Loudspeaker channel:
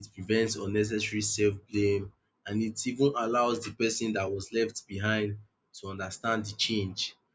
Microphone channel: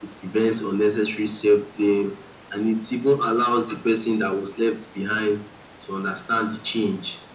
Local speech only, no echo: none

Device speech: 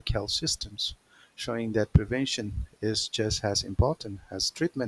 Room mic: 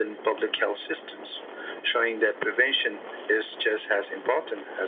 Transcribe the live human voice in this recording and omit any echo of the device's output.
none

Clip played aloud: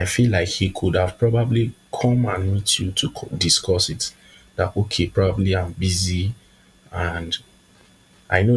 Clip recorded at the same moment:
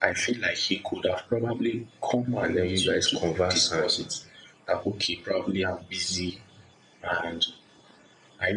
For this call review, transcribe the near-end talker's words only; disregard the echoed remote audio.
And then you guys converse and

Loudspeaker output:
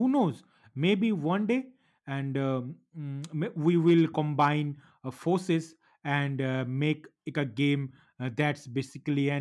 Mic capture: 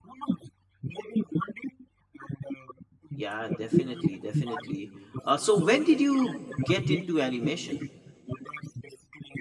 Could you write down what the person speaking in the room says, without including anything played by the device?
Yeah, definitely, definitely. Uh, so, when did you get into animation?

